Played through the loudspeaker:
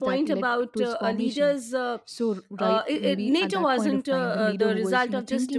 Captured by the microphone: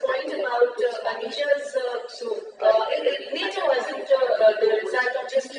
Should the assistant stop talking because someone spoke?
No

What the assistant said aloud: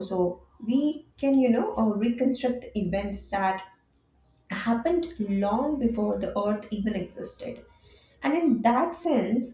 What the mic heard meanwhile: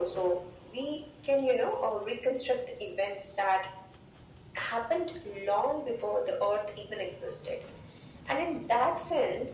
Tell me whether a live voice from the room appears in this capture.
No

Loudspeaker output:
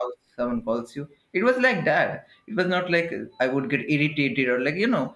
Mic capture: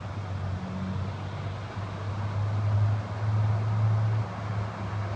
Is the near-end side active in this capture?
No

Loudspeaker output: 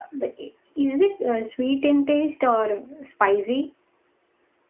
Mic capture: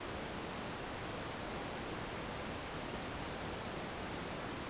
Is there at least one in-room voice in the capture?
No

